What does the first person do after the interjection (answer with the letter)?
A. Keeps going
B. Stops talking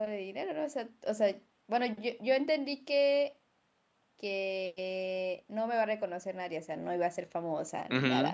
B